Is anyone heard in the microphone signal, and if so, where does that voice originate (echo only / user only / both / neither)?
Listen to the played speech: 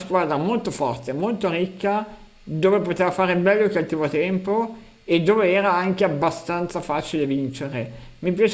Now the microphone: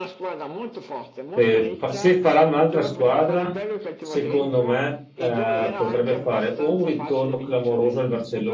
both